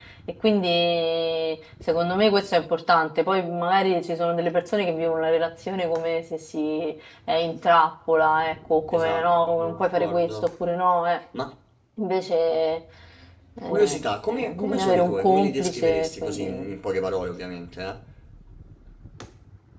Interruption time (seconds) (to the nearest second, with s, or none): 9 s